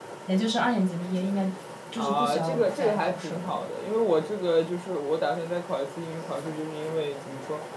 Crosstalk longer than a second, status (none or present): present